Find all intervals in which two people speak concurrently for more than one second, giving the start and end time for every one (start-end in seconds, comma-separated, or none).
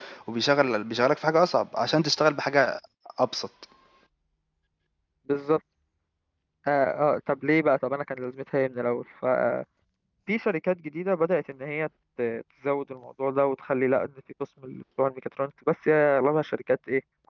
none